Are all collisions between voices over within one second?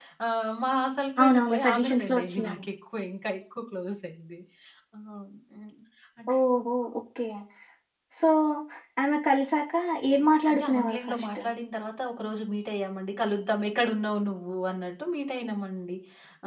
No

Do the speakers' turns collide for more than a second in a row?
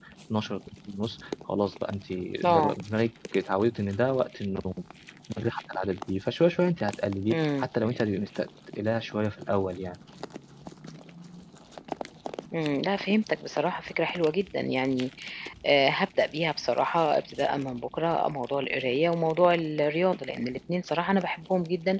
No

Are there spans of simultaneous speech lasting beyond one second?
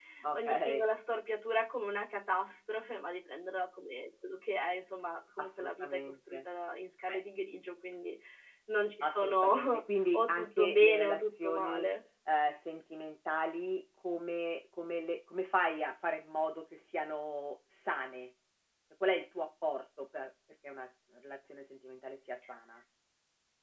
Yes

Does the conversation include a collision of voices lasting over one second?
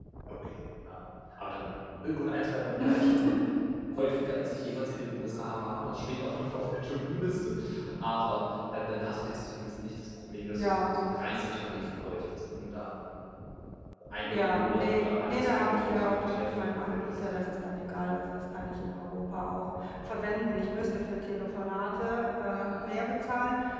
Yes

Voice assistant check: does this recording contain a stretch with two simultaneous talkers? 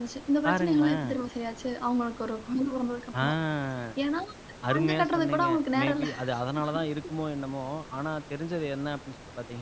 Yes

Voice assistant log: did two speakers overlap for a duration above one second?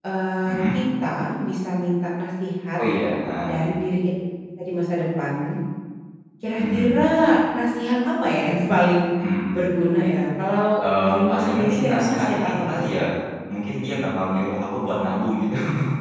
Yes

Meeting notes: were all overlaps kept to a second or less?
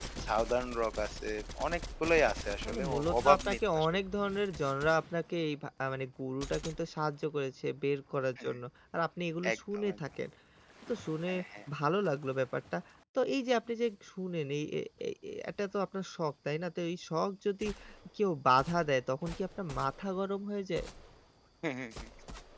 No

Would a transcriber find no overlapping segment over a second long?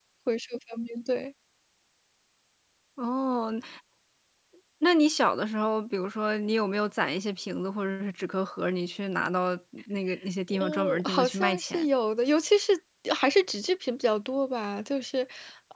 No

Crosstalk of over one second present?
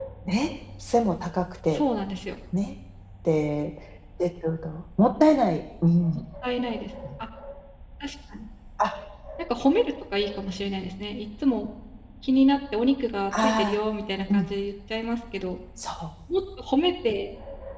No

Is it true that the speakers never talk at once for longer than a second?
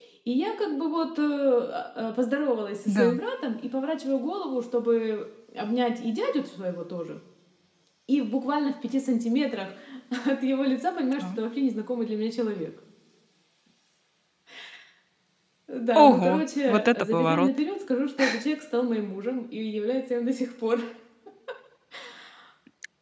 No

